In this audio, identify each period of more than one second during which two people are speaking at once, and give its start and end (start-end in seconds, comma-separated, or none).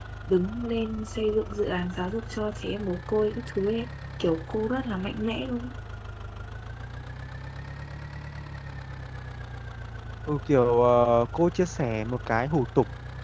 none